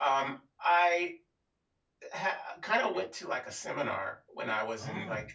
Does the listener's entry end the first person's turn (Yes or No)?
No